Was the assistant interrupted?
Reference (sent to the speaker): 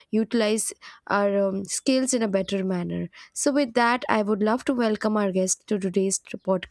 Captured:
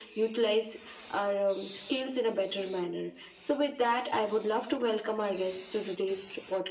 No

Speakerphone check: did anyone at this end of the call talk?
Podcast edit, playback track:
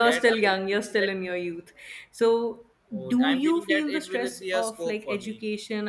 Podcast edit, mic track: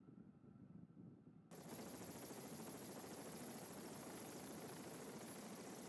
No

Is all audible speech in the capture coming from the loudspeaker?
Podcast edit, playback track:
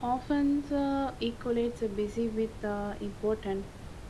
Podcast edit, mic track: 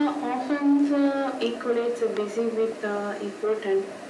Yes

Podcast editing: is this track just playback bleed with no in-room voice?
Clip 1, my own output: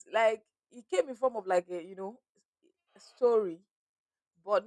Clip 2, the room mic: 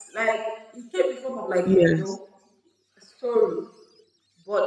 No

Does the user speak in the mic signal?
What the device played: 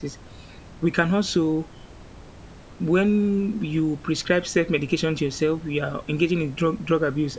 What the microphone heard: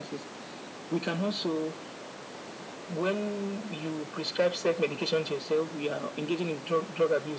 No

